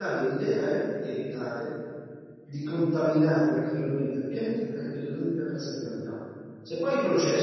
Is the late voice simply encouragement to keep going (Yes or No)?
Yes